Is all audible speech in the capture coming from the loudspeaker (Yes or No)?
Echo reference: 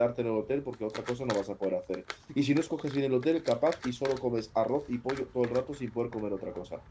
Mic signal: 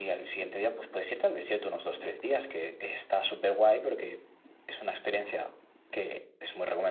No